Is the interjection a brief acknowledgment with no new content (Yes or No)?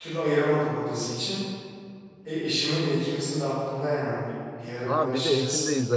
No